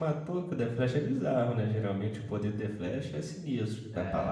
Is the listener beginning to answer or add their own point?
No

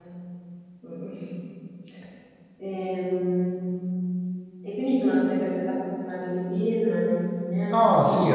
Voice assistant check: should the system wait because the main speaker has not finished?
No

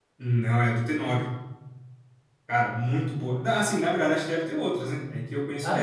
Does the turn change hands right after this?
Yes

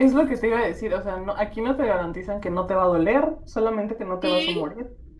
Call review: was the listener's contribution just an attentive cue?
No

